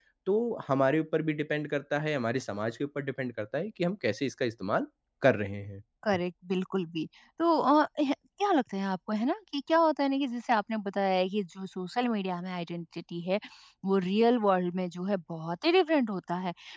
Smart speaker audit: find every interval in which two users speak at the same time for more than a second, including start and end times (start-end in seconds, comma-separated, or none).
none